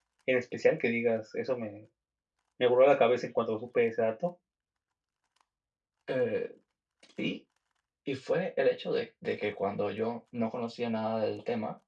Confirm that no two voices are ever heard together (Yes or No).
Yes